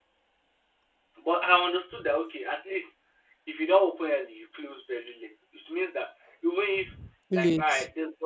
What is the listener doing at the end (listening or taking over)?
listening